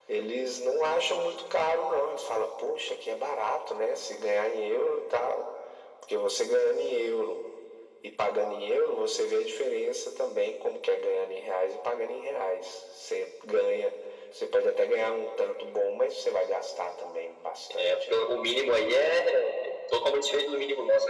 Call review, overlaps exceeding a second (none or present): none